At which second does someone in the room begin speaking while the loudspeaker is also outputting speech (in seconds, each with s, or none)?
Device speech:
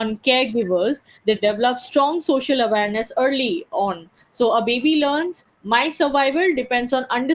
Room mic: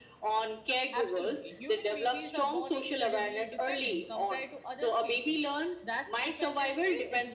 0.9 s